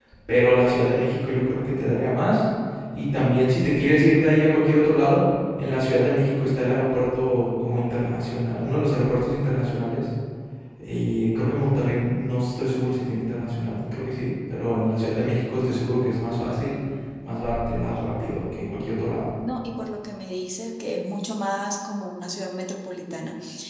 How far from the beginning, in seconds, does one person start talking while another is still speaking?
none

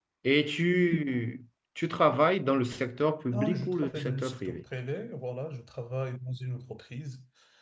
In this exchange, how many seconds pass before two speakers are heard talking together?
3 s

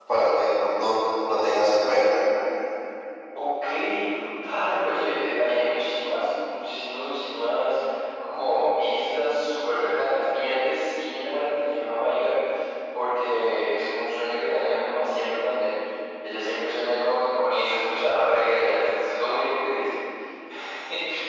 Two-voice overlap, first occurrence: none

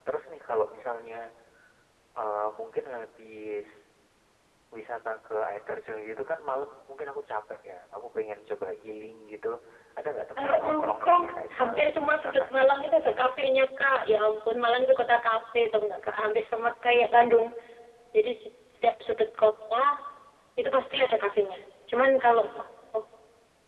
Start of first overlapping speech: 10 s

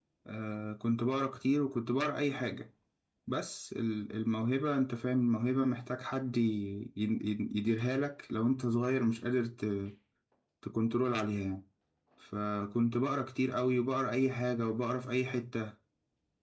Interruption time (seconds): none

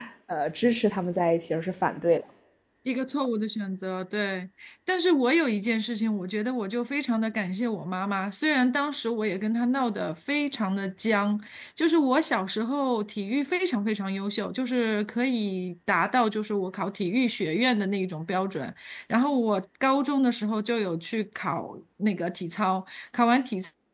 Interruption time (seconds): none

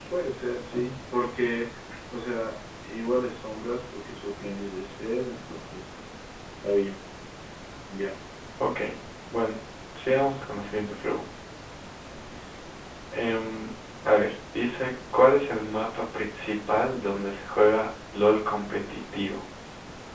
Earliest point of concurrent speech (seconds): none

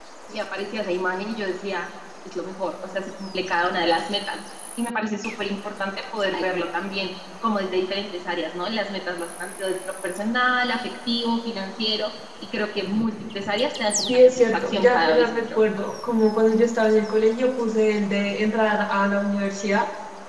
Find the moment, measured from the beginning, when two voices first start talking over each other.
14 s

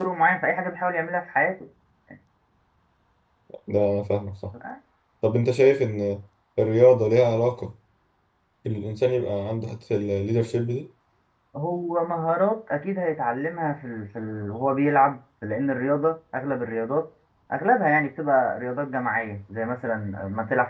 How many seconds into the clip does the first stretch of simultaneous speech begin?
none

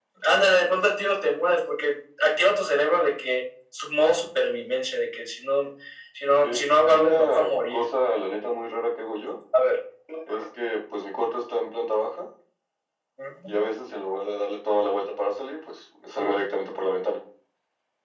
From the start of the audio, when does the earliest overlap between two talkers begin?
6 s

